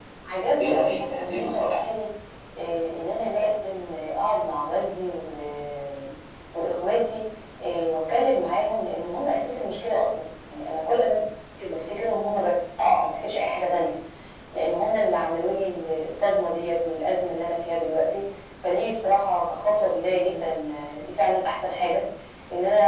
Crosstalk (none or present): present